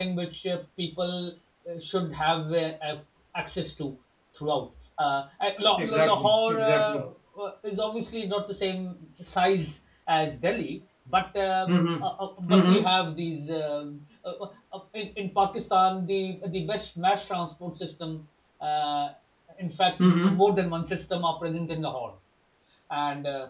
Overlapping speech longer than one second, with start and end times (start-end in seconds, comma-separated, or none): 5.8-7.0